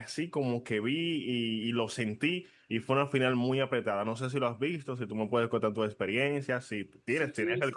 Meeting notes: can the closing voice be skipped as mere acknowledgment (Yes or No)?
No